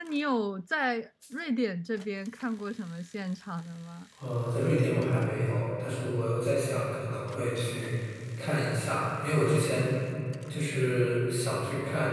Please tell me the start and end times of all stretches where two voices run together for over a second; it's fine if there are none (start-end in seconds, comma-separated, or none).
none